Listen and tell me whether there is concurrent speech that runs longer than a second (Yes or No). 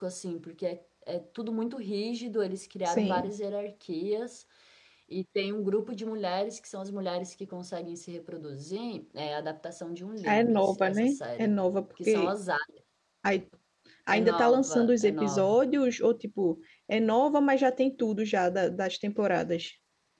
Yes